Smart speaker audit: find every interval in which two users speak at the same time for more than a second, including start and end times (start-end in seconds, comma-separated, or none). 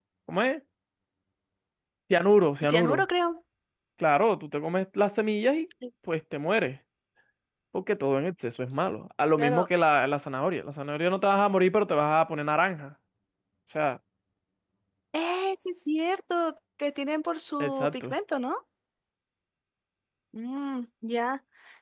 none